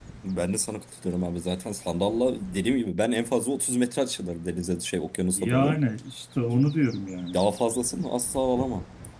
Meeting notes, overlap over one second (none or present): none